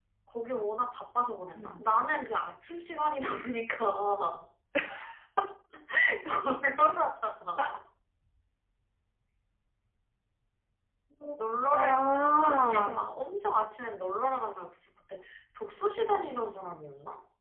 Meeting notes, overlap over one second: present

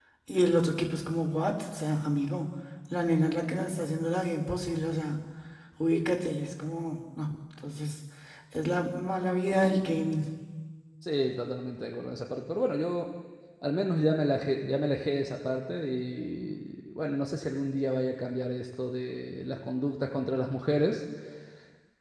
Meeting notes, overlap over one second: none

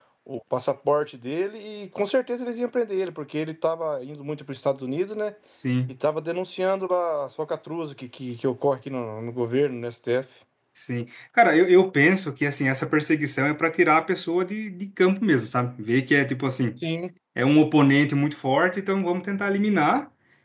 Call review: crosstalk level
none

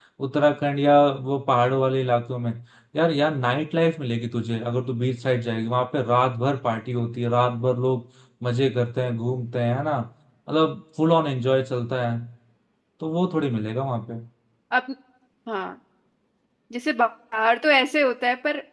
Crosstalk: none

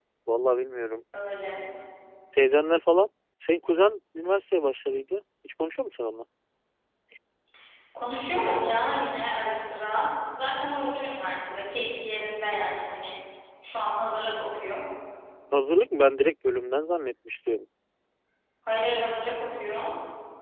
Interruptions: none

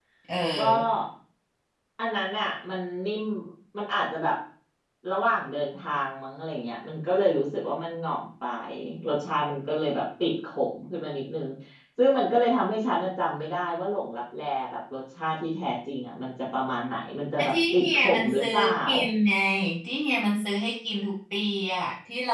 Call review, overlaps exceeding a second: present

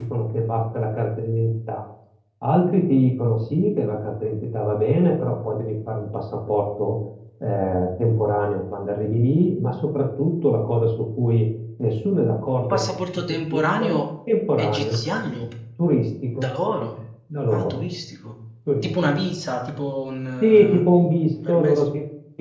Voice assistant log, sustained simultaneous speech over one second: present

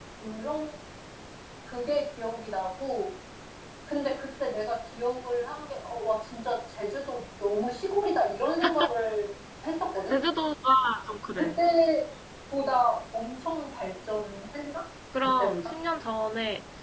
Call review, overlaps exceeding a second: none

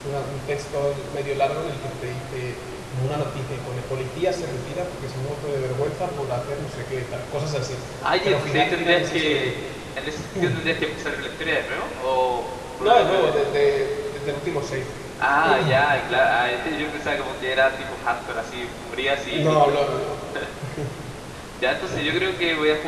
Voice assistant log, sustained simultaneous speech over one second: present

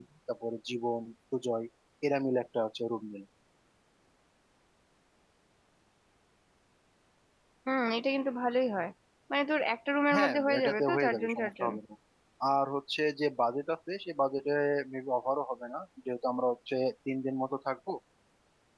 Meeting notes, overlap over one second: present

